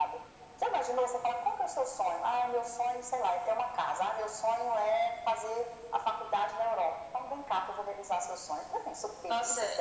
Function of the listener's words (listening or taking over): taking over